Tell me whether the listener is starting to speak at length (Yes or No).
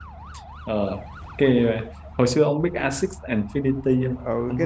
Yes